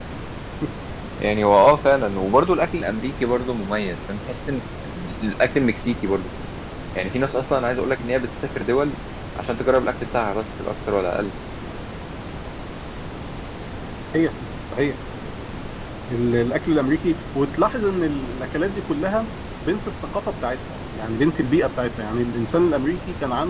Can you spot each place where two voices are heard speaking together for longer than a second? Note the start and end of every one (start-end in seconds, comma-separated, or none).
none